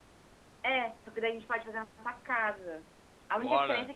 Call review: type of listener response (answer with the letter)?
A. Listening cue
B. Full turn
A